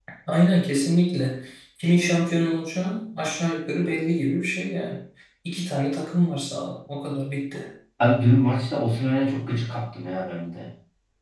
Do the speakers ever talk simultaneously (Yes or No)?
No